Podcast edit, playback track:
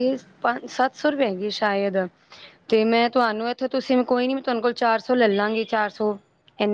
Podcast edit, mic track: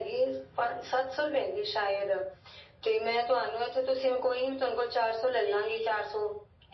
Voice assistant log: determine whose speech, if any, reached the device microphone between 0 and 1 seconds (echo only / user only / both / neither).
echo only